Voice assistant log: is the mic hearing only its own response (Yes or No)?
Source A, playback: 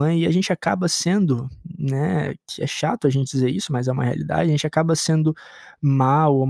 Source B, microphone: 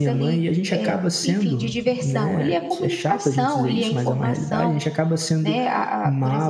No